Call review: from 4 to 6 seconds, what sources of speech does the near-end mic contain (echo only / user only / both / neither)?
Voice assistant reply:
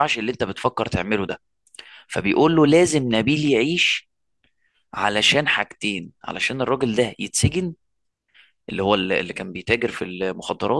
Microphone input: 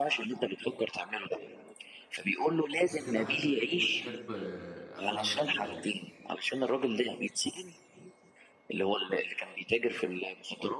both